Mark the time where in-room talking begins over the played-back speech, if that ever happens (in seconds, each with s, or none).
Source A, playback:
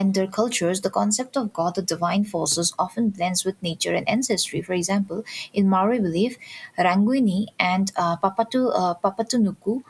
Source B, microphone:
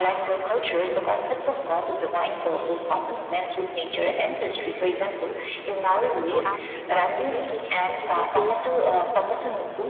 6.0 s